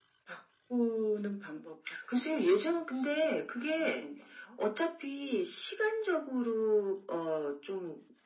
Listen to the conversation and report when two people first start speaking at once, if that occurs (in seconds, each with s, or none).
1.9 s